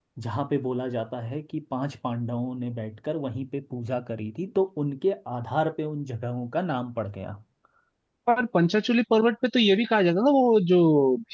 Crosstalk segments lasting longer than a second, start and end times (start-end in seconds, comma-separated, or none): none